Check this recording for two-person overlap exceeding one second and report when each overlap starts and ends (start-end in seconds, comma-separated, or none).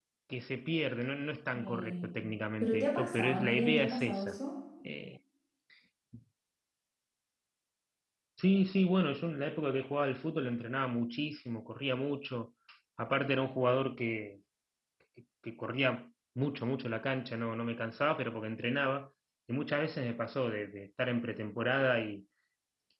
2.6-4.4